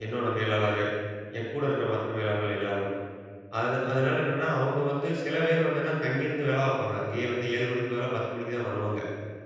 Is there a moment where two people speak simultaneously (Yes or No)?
No